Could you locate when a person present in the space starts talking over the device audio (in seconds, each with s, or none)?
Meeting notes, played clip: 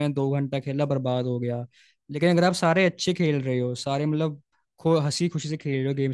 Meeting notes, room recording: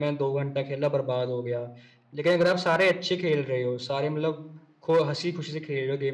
none